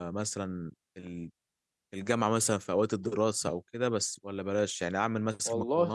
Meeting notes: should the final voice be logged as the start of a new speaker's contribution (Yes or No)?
No